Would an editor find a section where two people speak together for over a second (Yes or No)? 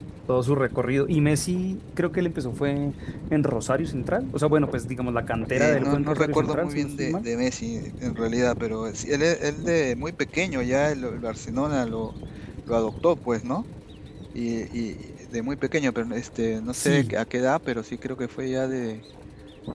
Yes